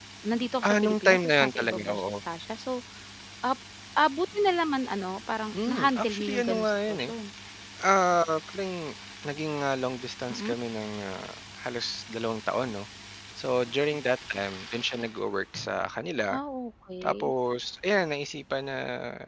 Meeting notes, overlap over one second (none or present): present